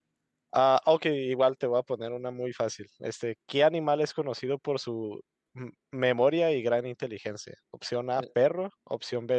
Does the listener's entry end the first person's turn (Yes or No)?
No